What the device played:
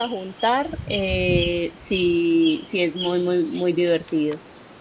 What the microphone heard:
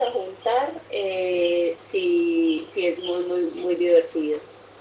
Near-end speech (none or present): none